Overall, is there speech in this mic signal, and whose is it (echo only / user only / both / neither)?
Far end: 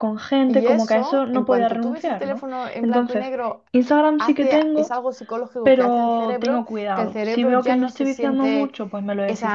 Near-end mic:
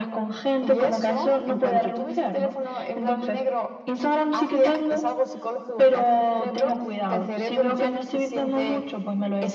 echo only